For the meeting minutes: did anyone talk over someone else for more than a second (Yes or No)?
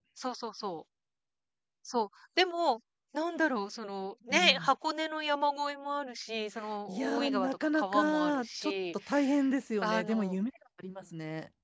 Yes